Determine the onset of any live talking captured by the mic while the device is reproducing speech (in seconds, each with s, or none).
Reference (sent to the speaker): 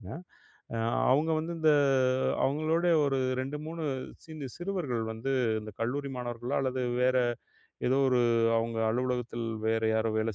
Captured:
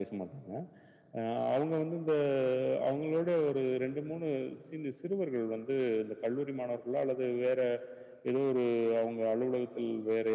none